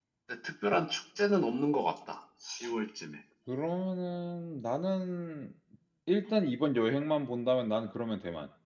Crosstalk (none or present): none